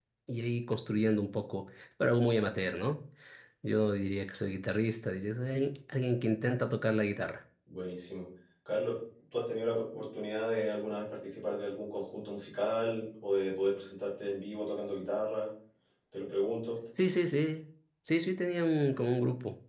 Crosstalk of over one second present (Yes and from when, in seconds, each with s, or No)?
No